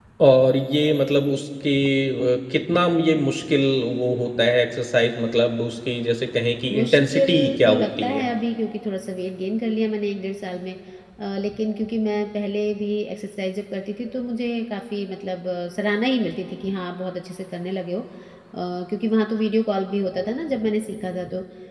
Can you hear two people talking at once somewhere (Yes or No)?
Yes